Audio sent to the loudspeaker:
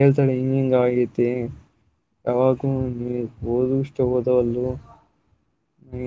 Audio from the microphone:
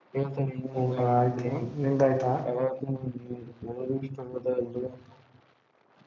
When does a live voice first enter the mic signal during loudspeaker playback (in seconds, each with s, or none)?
0.7 s